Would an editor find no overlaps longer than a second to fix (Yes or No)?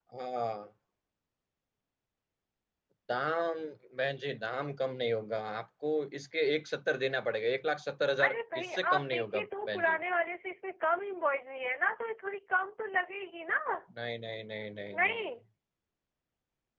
No